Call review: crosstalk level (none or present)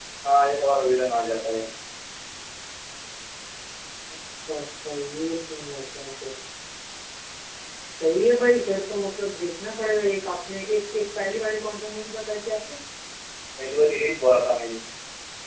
none